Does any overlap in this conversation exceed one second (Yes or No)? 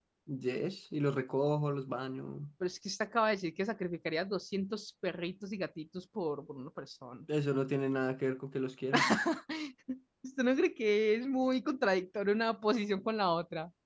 No